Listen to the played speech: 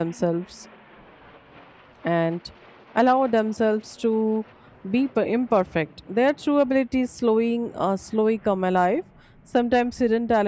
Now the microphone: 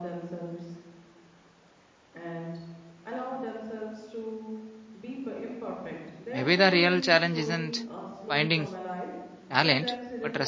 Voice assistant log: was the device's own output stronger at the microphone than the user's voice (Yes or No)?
No